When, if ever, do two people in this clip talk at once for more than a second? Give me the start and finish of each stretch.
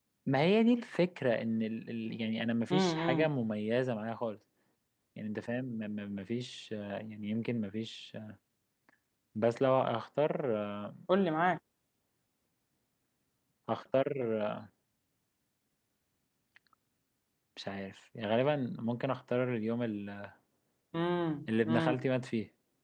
none

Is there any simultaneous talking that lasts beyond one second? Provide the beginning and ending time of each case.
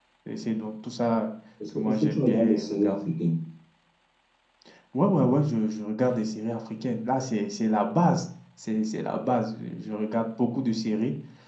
1.7-3.0

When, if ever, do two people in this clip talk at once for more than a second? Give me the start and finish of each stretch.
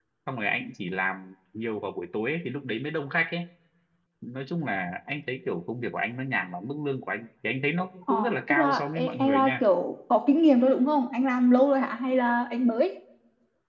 8.1-9.6

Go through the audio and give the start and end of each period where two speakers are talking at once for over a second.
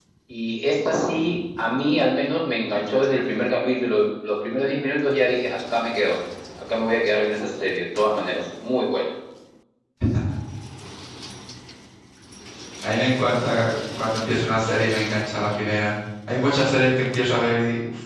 none

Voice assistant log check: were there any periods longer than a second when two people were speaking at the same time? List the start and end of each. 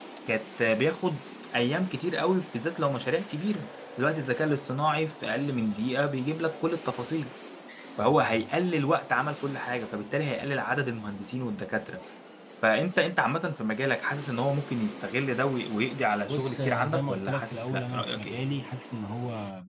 16.3-18.4

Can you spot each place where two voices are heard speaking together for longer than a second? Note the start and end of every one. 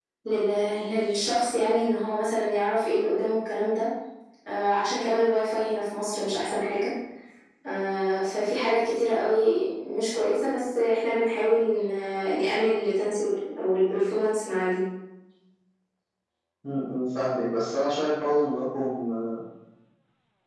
none

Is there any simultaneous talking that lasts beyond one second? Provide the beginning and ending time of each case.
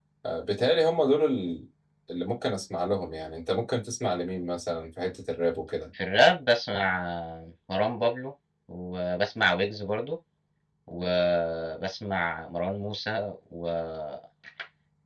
none

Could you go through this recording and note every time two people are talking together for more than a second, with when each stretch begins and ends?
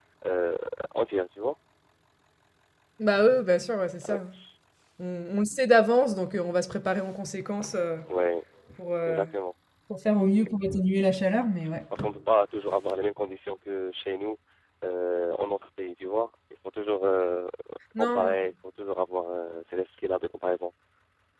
none

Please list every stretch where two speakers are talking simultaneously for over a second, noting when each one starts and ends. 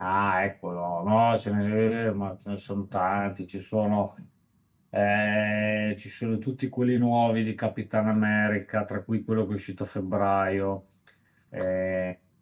none

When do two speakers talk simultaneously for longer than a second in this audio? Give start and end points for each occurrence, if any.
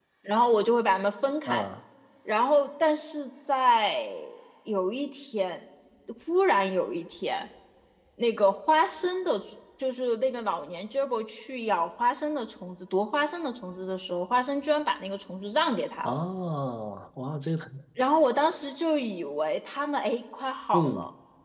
none

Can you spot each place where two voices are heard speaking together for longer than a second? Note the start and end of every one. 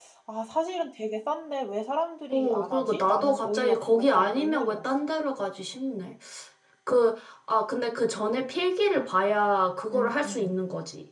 2.3-4.8

